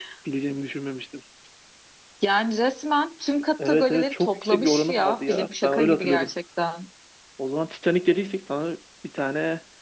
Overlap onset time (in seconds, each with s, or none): 3.6 s